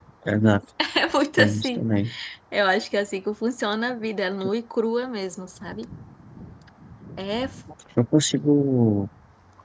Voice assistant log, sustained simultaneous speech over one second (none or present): none